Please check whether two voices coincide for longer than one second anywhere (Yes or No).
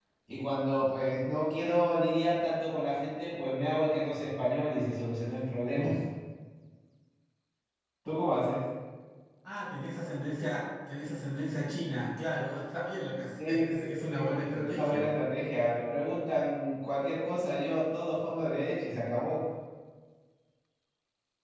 Yes